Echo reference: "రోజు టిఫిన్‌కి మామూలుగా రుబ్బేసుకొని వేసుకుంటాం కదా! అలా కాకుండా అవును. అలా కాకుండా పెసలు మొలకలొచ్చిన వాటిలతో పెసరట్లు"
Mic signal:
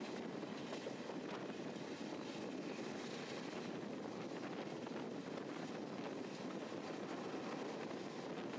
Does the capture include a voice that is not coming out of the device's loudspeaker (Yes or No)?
No